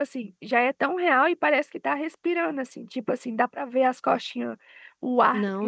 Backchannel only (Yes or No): Yes